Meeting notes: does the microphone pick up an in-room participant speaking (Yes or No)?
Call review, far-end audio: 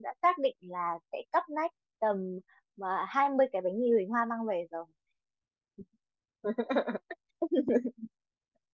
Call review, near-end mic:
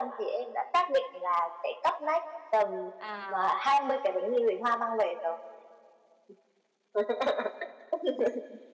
Yes